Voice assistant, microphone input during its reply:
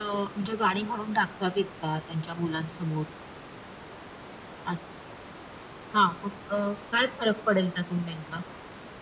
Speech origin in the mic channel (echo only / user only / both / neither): echo only